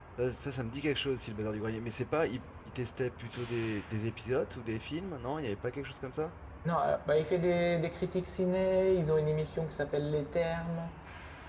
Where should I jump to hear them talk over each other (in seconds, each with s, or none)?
none